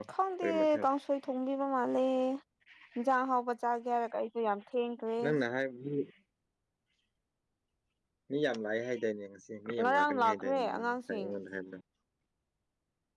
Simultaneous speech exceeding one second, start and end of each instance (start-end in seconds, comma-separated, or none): 9.8-11.3